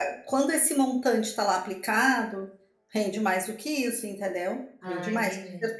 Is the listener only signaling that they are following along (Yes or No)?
Yes